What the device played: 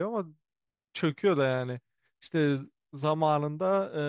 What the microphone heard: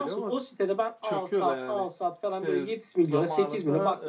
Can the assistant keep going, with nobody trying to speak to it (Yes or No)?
No